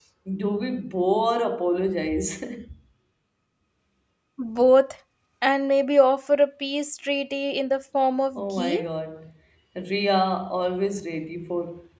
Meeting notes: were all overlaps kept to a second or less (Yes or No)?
Yes